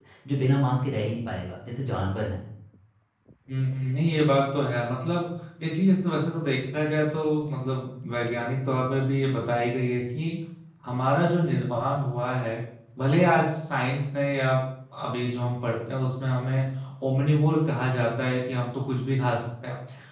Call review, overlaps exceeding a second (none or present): none